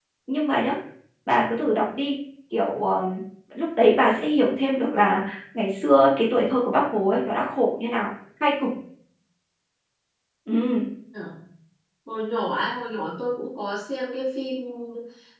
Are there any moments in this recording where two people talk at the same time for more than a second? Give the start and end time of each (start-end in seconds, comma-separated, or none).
none